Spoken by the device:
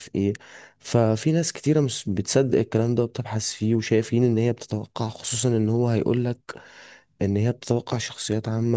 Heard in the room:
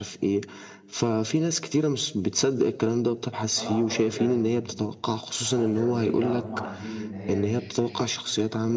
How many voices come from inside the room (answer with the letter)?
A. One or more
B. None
A